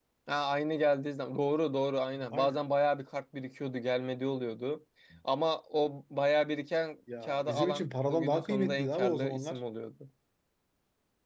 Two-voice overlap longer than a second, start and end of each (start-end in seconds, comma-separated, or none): 7.2-9.6